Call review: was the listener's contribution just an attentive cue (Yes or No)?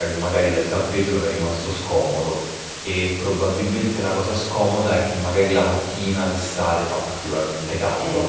Yes